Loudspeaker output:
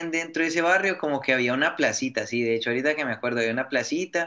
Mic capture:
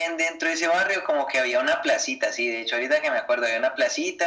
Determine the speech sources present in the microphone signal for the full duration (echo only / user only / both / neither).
echo only